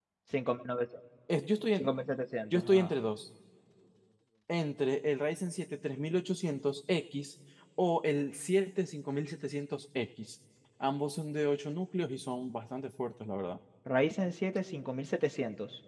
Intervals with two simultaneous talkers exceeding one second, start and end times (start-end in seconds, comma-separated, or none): none